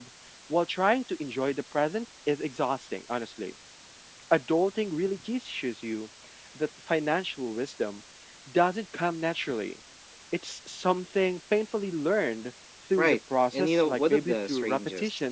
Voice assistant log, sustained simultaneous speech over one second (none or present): present